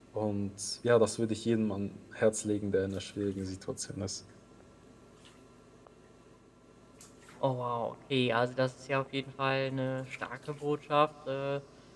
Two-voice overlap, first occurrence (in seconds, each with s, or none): none